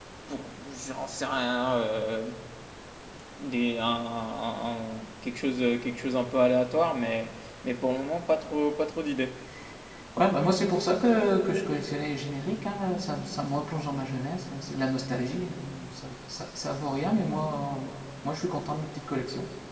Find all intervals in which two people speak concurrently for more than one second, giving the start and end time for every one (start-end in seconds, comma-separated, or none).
none